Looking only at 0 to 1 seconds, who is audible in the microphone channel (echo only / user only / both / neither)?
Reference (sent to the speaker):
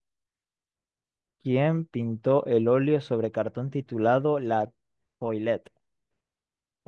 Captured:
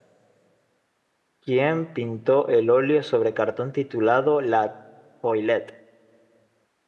neither